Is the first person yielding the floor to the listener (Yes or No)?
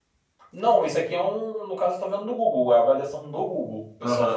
Yes